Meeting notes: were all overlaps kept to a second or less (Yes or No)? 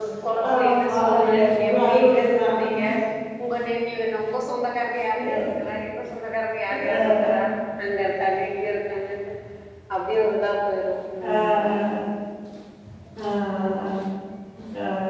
No